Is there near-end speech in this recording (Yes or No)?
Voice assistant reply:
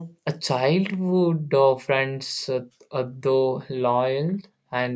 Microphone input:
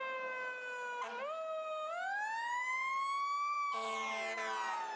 No